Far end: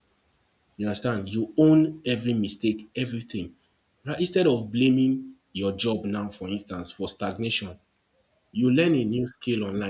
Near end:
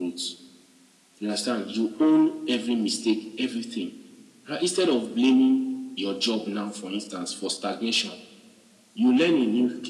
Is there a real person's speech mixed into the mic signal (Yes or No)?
No